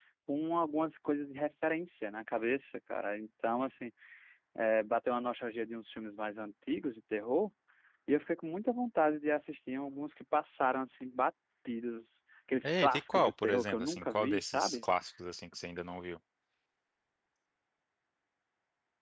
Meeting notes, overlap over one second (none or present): present